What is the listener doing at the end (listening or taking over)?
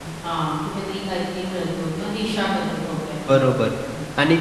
taking over